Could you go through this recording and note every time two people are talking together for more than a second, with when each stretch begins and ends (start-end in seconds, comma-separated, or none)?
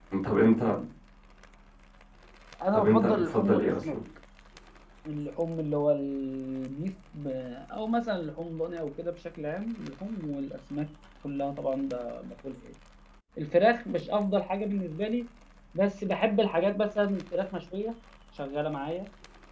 2.7-4.0